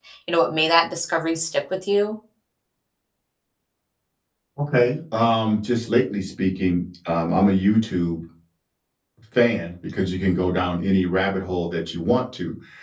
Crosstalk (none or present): none